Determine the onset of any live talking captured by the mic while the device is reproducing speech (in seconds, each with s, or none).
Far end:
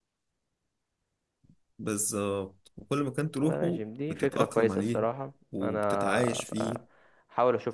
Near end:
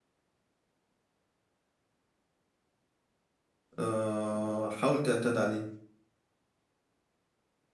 3.8 s